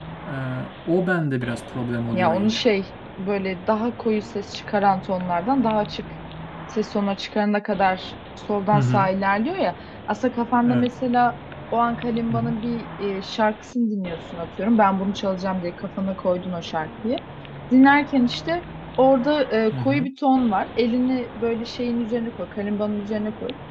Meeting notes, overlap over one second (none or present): none